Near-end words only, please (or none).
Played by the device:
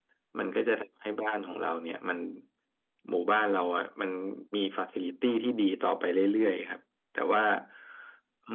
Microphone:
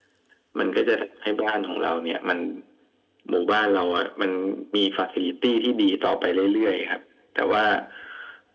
none